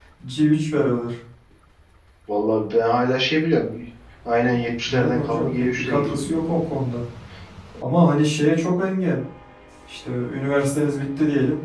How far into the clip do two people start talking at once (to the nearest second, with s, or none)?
5 s